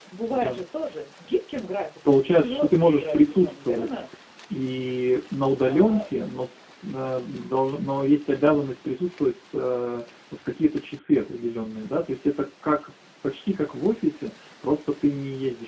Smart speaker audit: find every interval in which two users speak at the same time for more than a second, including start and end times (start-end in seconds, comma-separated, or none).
2.1-4.0